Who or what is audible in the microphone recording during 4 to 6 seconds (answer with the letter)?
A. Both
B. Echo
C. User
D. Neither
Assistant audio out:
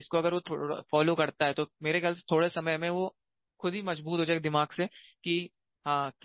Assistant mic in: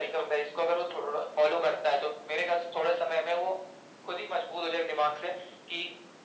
B